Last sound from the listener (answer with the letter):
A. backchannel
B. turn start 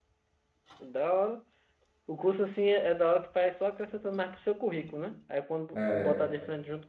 A